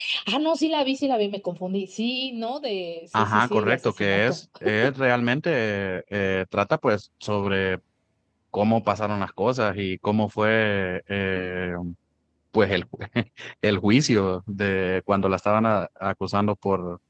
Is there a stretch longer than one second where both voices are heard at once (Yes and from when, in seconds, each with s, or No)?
Yes, from 3.1 s